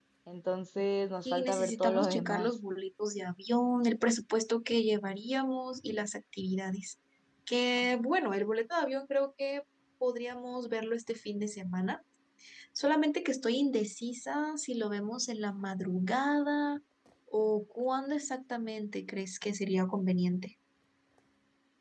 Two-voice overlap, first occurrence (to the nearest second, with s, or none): 1 s